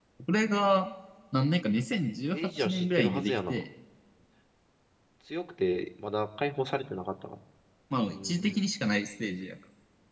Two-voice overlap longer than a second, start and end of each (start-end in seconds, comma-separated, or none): 2.3-3.6